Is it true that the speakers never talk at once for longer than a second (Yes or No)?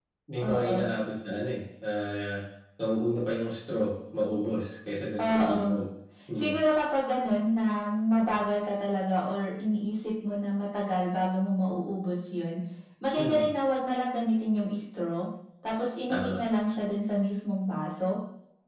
Yes